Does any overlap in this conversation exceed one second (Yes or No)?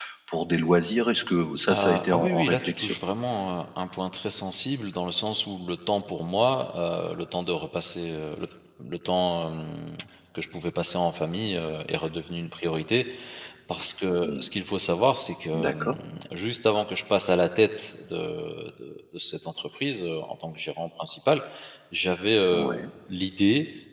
Yes